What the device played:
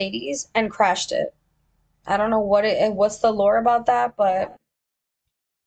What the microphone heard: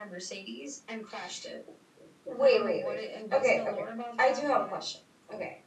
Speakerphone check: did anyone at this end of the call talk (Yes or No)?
Yes